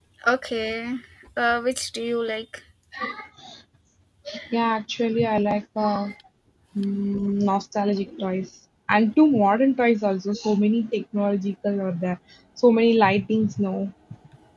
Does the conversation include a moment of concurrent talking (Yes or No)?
No